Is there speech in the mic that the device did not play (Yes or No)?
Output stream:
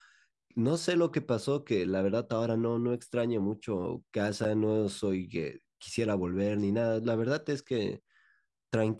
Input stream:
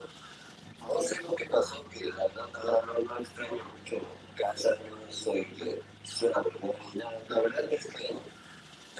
No